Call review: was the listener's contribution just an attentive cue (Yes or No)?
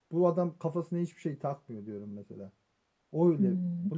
No